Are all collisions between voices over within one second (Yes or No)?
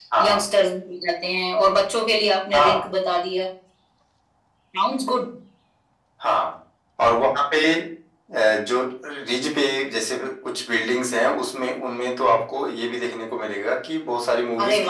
Yes